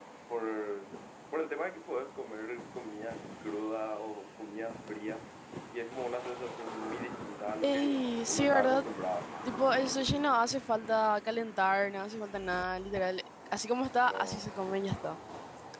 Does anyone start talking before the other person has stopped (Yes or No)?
Yes